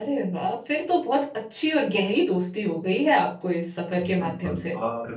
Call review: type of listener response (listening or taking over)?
taking over